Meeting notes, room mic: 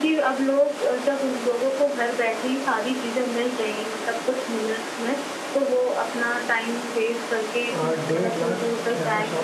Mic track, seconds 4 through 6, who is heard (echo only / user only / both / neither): echo only